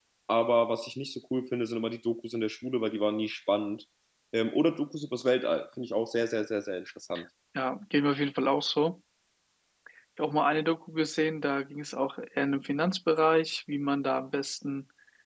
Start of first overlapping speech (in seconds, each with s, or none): none